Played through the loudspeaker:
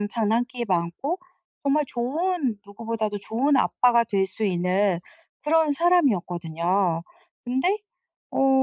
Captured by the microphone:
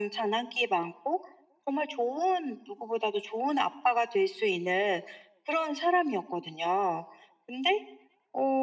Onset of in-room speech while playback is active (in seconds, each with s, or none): none